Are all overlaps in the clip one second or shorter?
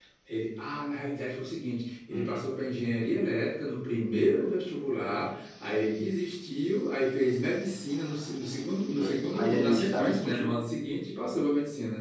No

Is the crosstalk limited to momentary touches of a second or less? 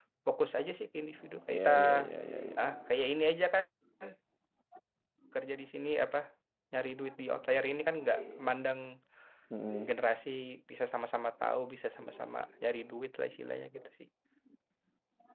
Yes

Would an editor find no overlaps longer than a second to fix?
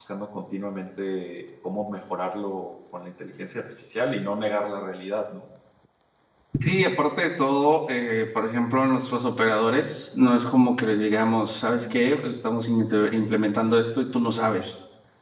Yes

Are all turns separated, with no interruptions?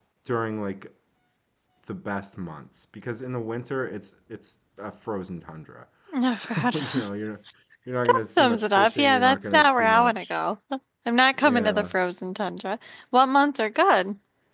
No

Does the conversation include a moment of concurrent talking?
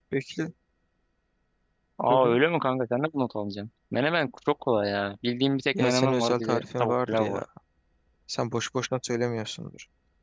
Yes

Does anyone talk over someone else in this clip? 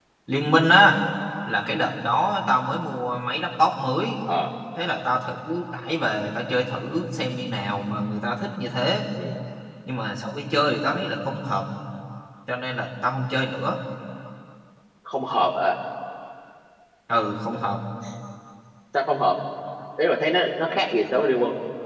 No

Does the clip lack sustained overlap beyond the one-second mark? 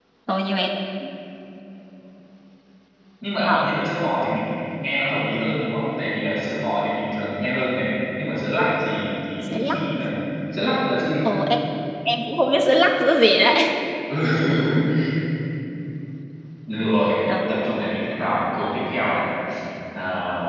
Yes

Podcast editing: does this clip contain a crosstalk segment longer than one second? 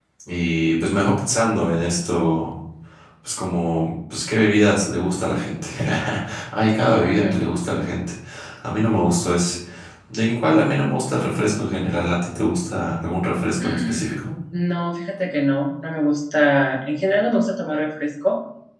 No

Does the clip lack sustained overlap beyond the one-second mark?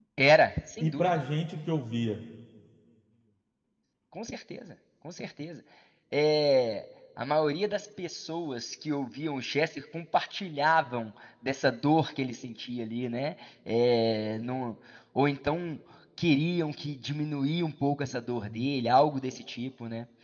Yes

